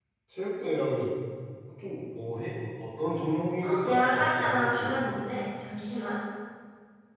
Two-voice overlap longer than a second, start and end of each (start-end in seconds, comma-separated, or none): 3.6-5.2